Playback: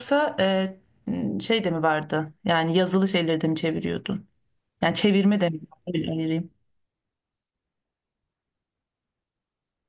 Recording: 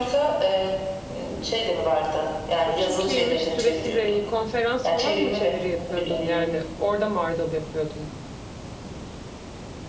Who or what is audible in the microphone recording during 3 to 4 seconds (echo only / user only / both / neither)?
both